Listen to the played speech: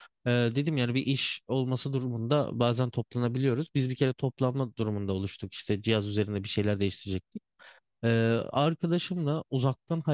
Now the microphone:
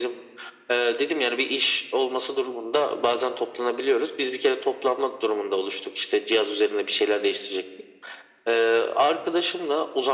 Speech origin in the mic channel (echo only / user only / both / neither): echo only